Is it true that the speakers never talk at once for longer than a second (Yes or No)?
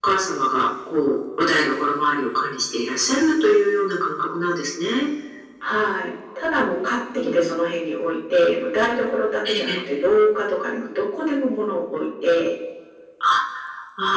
Yes